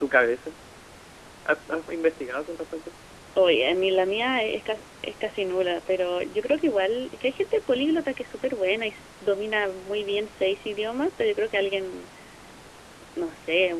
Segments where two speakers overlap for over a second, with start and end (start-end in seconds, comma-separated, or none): none